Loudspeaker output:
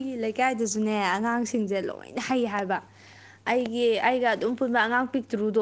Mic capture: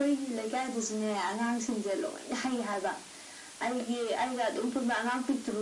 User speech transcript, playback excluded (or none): none